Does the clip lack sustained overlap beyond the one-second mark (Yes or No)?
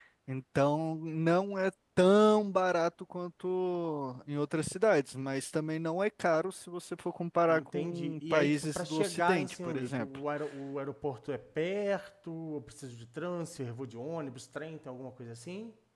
No